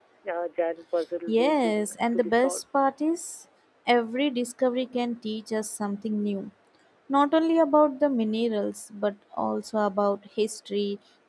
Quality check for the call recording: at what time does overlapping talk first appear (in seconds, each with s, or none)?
1.3 s